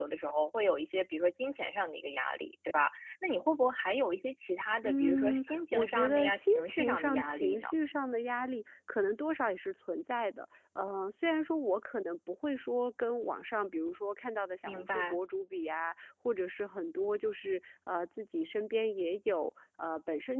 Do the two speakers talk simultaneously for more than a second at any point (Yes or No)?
Yes